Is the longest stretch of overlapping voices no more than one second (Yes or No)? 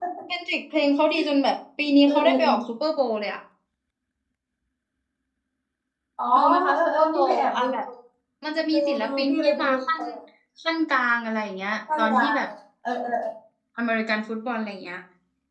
No